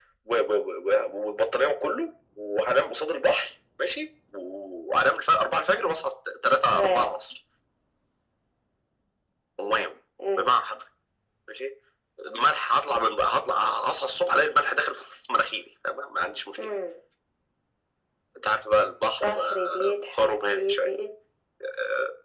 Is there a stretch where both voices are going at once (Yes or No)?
Yes